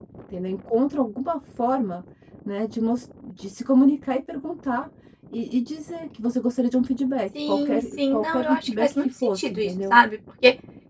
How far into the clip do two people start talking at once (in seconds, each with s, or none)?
7.3 s